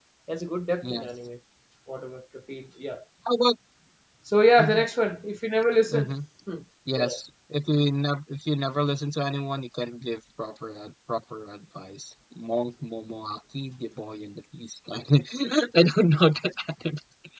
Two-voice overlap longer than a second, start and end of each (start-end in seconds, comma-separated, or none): none